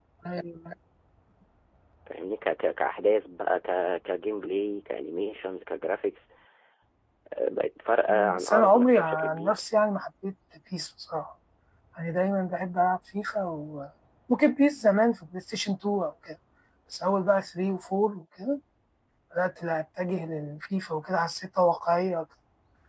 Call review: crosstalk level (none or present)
present